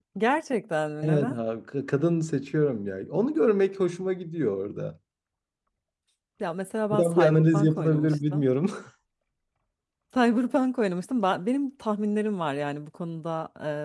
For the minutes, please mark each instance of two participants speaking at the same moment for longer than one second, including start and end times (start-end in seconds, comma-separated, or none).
6.9-8.4